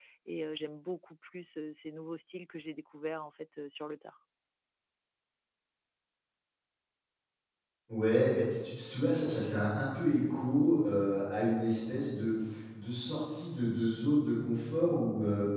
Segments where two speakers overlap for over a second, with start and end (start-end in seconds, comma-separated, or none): none